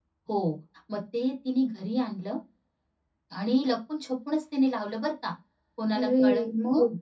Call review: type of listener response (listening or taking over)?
listening